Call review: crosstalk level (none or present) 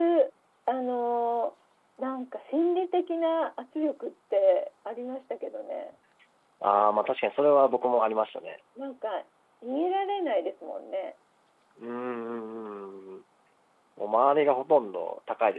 none